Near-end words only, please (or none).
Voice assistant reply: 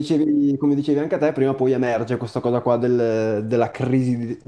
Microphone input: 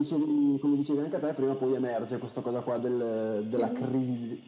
Mhm.